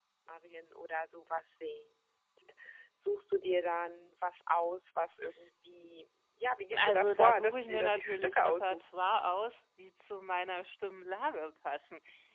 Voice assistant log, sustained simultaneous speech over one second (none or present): present